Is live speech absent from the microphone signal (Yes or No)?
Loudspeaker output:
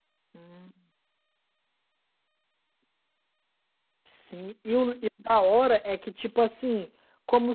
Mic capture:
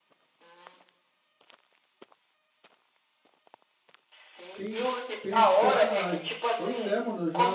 No